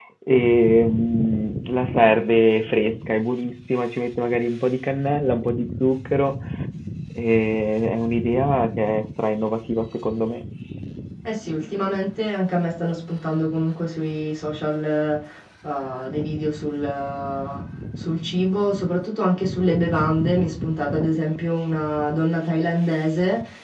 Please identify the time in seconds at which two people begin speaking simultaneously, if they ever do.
none

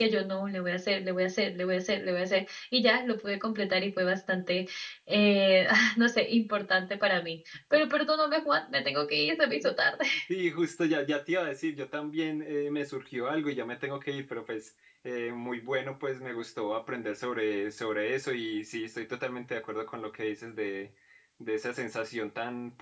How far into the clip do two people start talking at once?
none

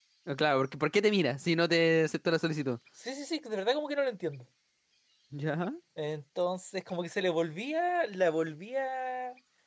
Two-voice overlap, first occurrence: none

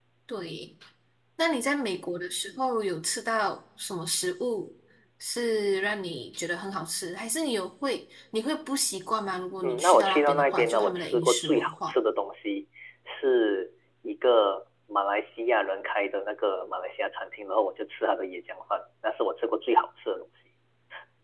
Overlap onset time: 9.6 s

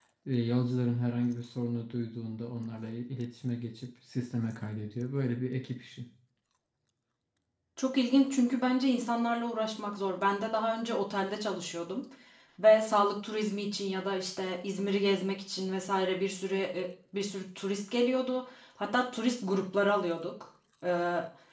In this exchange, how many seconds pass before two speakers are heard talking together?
none

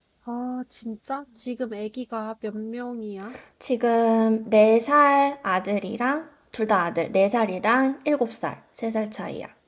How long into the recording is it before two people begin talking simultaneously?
none

